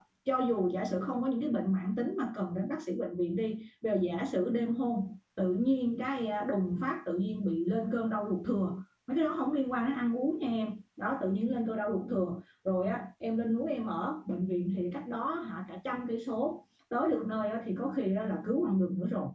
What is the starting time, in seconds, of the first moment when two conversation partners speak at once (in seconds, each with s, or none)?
none